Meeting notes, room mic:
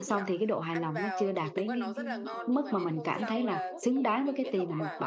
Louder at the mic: user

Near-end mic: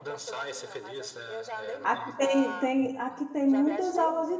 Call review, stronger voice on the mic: user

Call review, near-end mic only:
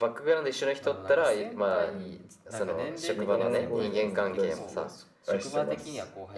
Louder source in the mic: echo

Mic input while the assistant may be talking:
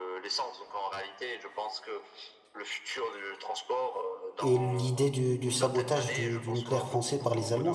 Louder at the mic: user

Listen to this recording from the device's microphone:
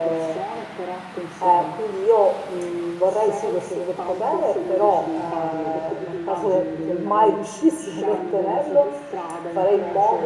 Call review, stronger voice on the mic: user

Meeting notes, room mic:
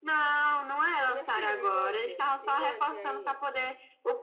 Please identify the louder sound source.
echo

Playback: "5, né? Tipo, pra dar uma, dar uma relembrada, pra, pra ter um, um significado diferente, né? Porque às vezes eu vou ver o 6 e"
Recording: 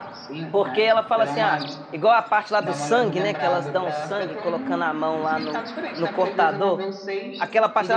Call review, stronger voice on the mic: user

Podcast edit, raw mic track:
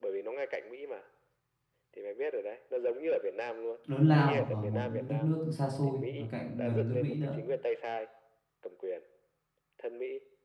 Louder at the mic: user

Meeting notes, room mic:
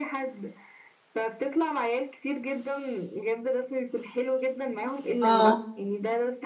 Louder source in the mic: user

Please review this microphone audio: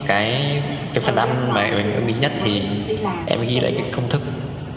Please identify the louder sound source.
echo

